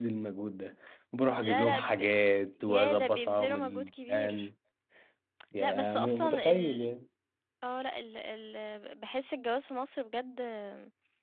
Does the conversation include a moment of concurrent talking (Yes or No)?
Yes